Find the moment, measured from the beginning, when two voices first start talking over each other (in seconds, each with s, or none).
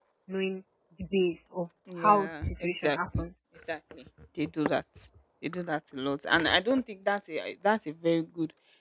1.9 s